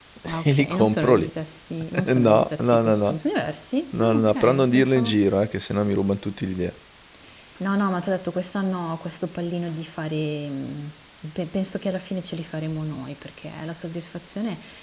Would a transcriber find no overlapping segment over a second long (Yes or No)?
No